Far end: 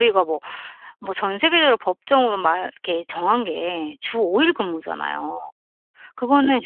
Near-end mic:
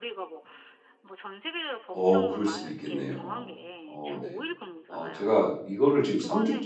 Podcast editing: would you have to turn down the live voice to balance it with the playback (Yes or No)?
Yes